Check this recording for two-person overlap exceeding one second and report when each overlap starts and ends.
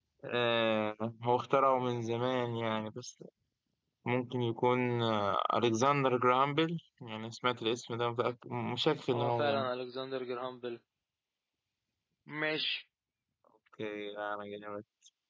none

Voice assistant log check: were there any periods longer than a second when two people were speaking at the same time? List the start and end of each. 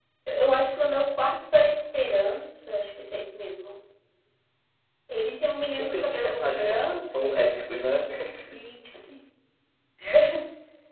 5.8-7.3

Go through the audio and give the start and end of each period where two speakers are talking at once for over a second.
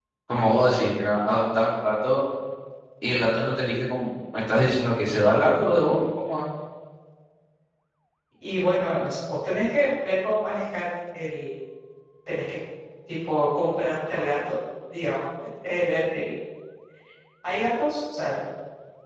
none

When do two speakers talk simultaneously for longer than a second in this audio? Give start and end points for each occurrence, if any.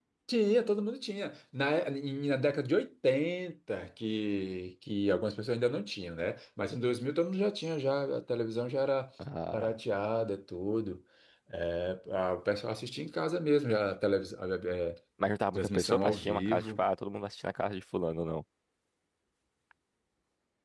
15.6-16.8

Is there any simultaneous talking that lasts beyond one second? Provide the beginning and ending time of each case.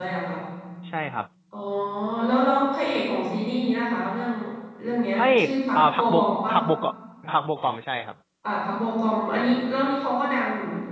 5.2-6.5

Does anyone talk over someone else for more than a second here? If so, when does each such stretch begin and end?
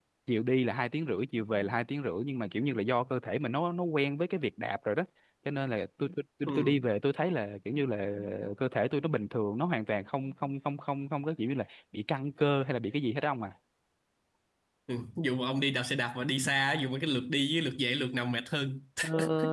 none

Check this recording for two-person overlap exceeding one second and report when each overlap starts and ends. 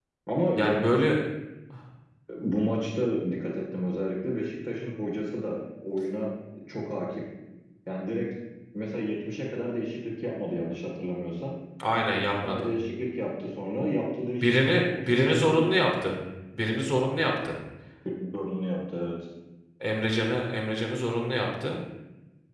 14.4-15.7

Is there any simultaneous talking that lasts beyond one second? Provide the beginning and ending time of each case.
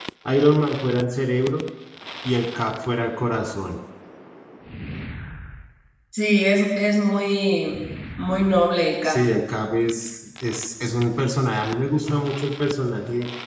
none

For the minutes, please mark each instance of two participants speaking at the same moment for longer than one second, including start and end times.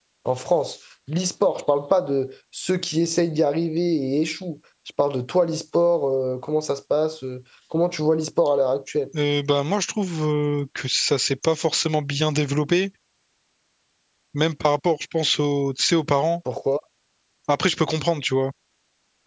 none

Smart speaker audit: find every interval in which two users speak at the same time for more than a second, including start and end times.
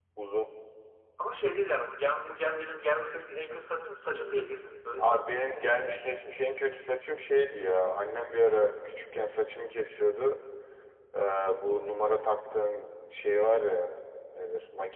none

